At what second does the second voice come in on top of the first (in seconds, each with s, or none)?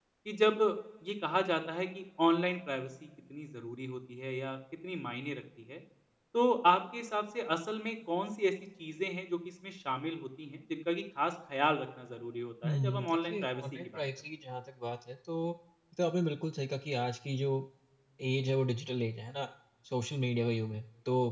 12.6 s